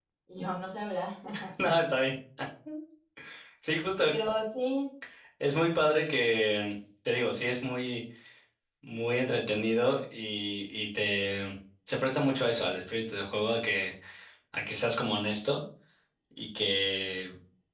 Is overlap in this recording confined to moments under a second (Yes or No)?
Yes